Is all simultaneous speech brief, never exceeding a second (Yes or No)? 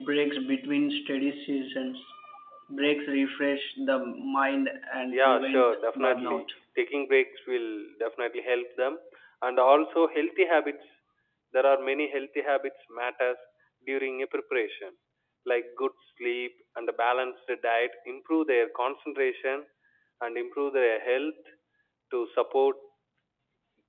No